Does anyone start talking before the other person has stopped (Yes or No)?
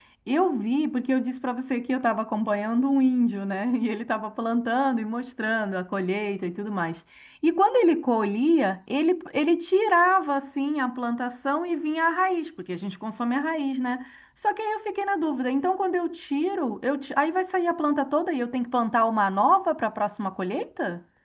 No